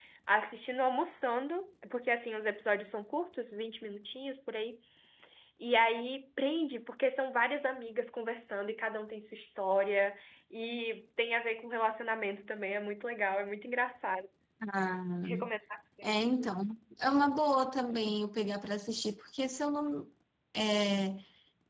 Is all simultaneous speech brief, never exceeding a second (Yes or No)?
Yes